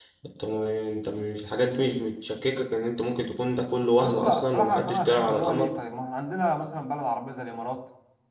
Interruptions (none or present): present